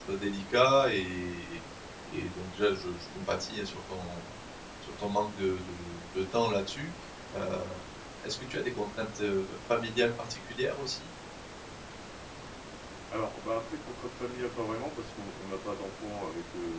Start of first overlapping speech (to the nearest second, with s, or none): none